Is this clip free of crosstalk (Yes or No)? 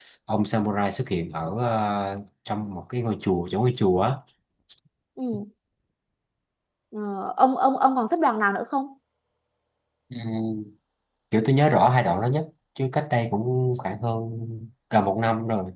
Yes